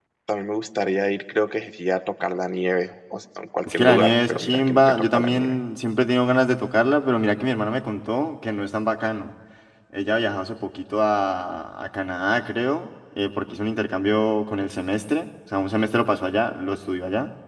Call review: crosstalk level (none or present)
present